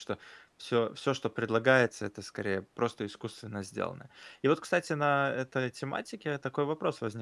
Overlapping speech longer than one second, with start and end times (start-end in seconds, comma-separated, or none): none